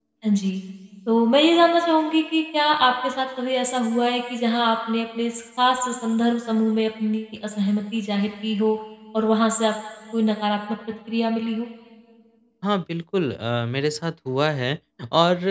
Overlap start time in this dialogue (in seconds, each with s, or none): none